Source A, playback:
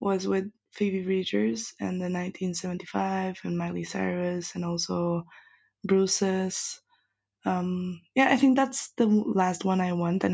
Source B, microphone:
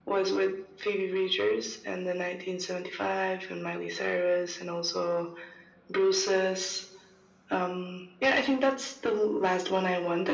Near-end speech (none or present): none